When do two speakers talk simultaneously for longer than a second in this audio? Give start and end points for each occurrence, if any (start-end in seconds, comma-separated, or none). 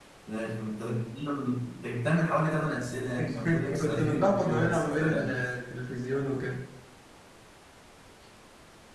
3.5-5.3